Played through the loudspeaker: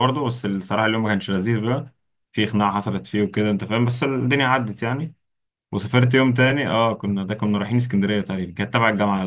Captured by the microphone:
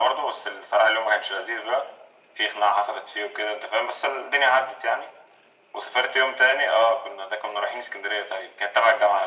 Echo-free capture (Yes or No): No